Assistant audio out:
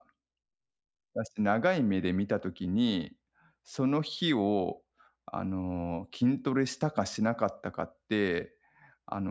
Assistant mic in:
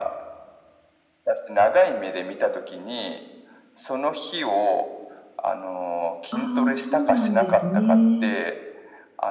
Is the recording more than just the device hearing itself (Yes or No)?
Yes